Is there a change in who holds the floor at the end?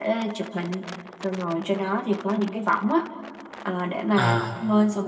No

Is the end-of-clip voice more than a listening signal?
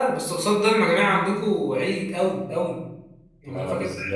No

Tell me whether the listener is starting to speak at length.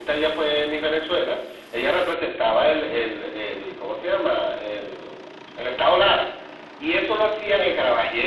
No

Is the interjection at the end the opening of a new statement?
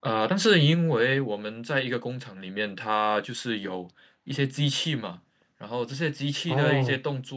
No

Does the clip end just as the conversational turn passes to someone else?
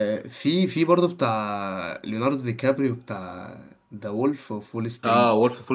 Yes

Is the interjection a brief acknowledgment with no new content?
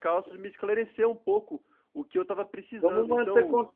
No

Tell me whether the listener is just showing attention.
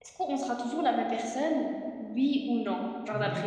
No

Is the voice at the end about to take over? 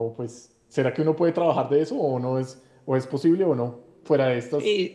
Yes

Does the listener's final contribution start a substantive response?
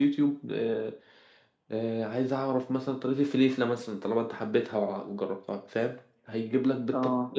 No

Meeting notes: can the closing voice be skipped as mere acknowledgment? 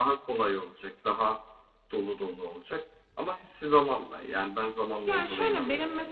No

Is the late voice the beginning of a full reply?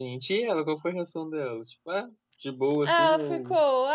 Yes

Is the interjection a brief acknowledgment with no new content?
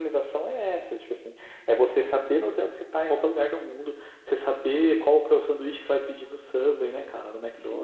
No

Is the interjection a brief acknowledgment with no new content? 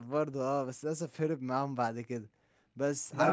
No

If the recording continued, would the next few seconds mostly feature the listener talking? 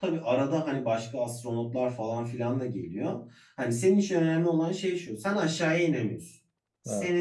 No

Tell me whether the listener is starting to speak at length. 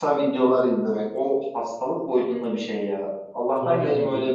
No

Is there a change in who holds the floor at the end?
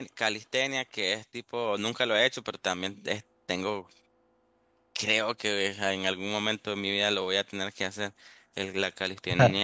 No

